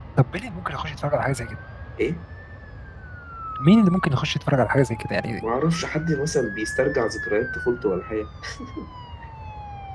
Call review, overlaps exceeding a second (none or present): none